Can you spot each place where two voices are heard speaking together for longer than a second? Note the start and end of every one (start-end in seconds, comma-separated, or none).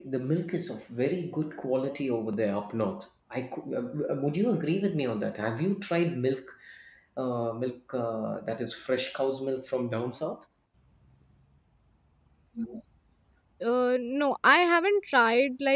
none